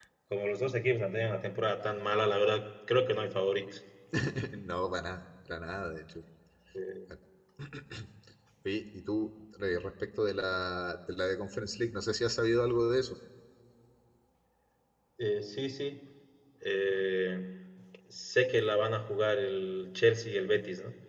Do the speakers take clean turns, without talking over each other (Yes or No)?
Yes